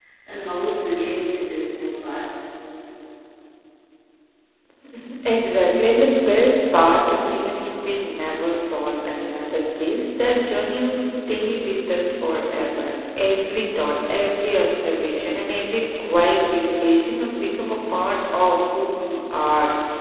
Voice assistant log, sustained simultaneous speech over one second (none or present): none